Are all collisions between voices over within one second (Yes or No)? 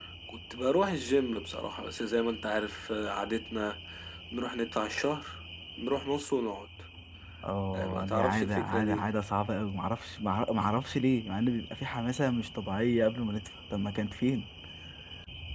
No